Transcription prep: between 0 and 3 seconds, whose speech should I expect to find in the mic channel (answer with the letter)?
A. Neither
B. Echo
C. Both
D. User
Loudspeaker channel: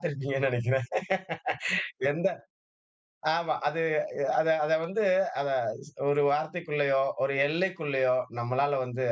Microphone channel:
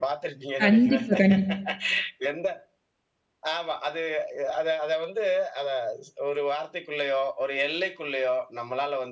C